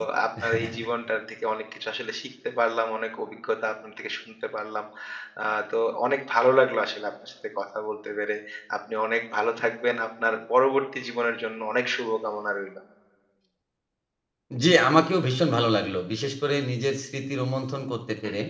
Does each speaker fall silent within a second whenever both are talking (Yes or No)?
Yes